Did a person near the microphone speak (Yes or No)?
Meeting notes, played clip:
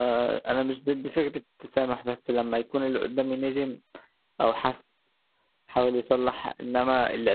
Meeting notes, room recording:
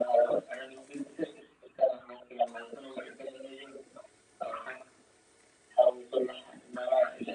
No